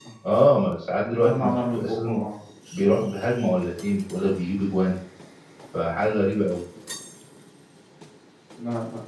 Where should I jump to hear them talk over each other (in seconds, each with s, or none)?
1.0 s